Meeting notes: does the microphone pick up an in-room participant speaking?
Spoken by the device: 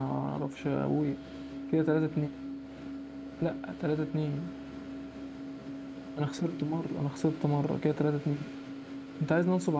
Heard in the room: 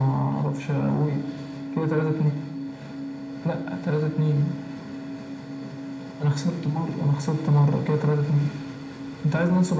No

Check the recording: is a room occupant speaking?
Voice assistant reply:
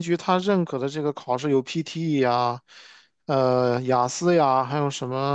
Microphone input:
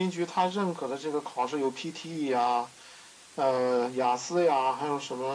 No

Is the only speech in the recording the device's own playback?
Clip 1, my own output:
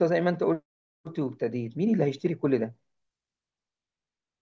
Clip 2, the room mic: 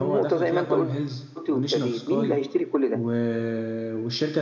No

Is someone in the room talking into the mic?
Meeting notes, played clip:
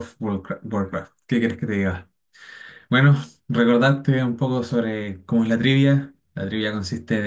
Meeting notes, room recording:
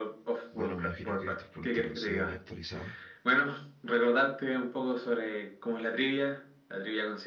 Yes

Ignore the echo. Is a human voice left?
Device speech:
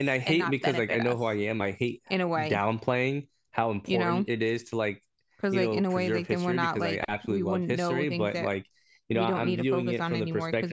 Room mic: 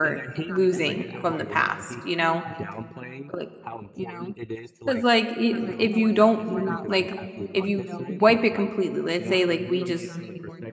Yes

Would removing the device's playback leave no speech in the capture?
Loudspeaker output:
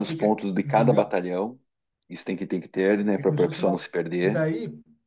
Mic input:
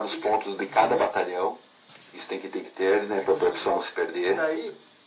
Yes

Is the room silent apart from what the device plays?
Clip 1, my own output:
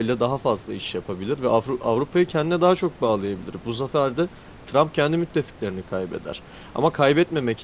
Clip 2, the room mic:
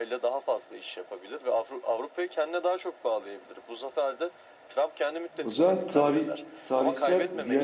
No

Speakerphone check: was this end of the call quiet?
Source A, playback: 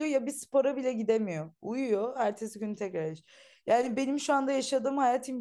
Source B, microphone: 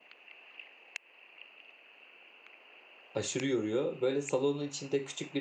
No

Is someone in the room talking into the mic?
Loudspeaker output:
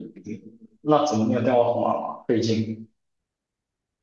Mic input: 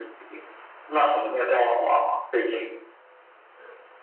No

